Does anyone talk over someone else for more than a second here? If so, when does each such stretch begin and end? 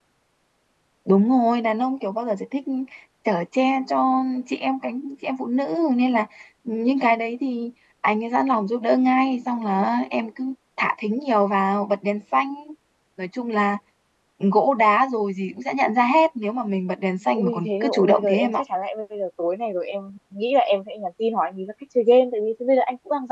17.3-18.6

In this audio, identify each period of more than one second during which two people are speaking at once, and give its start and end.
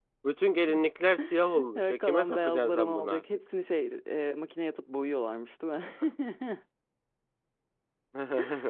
1.8-3.2

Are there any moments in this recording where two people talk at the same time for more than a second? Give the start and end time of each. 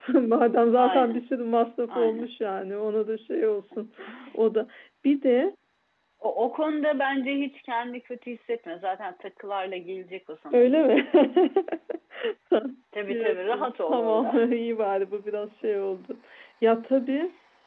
13.1-14.4

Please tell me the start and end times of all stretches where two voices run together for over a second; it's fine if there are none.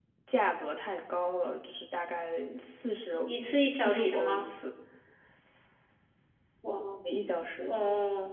3.2-4.5

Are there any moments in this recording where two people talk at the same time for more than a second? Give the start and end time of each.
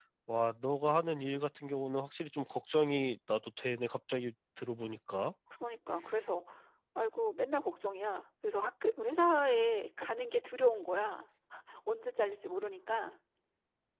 none

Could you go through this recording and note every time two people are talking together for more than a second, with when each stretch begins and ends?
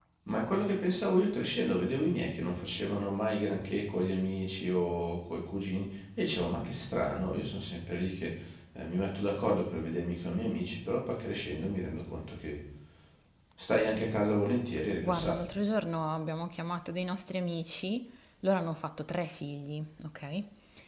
none

